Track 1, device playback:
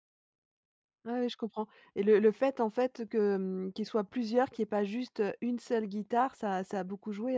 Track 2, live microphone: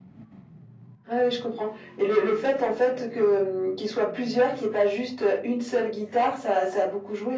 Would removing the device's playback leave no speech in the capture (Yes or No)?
Yes